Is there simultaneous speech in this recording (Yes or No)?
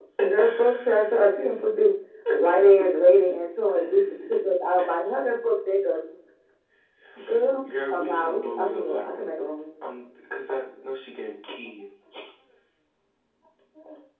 Yes